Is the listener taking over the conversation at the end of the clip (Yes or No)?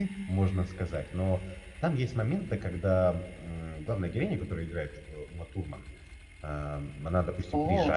No